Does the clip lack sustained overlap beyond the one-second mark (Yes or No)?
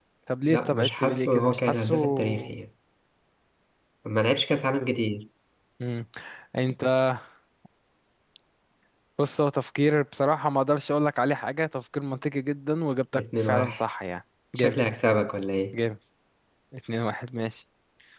No